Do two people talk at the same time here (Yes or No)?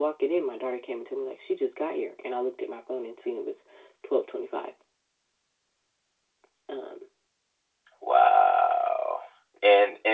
No